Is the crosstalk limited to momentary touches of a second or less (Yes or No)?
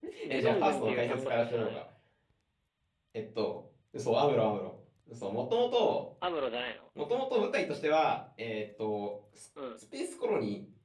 No